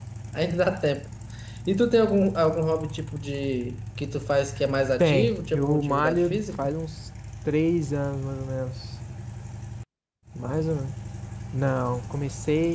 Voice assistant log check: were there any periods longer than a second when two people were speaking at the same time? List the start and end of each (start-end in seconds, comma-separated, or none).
5.0-6.7